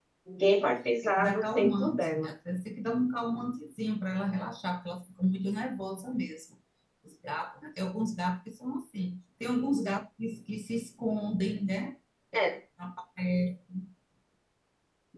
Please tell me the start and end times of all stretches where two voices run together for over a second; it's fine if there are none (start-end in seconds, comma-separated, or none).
1.0-2.3